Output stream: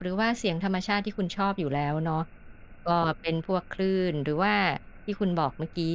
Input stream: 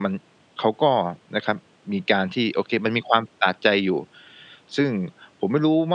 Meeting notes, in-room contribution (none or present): present